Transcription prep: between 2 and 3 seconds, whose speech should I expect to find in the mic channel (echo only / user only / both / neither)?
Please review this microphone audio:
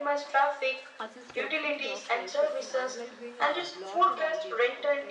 both